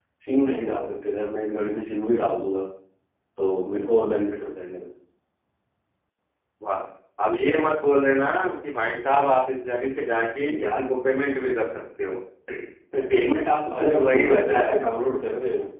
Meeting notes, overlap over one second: present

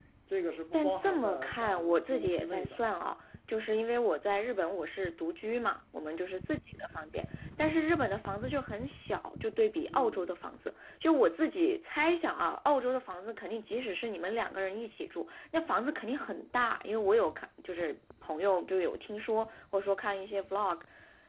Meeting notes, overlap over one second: present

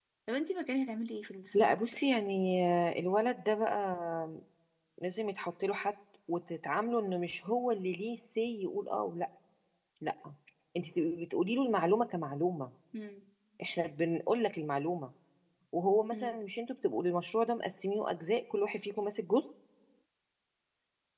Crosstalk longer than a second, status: none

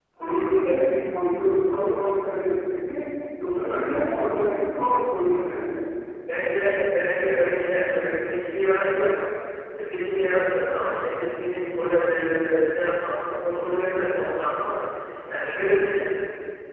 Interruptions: none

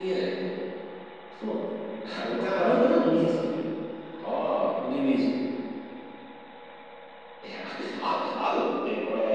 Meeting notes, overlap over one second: none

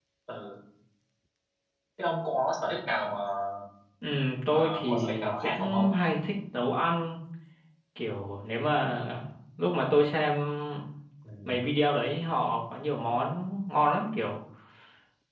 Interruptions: present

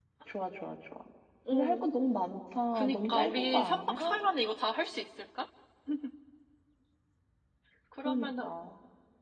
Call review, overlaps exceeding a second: present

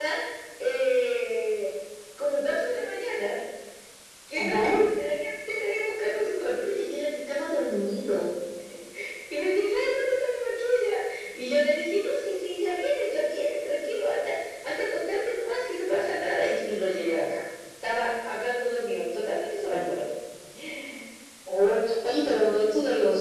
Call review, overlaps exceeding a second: none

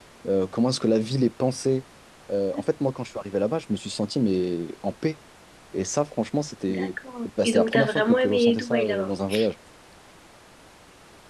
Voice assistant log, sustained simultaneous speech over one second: present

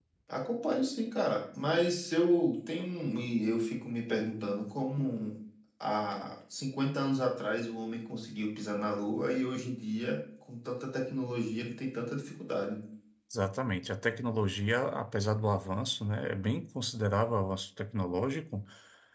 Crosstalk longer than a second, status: none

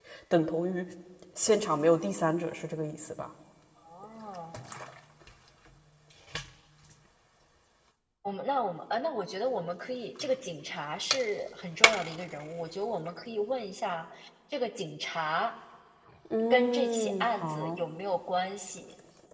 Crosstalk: present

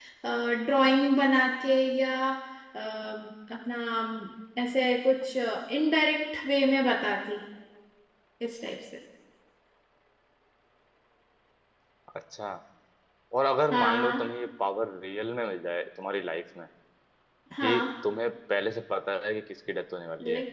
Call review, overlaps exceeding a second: none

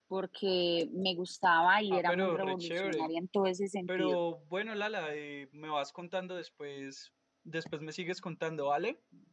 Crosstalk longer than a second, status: present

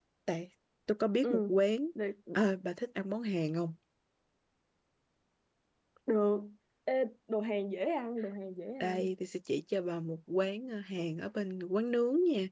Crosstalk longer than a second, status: none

